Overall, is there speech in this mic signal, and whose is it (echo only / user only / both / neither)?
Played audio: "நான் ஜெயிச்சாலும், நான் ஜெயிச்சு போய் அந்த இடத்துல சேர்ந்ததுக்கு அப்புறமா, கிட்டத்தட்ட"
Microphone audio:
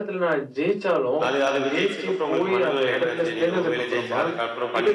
both